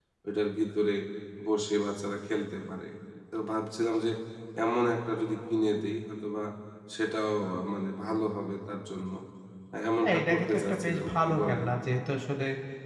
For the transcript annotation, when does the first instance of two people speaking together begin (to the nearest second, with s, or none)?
10 s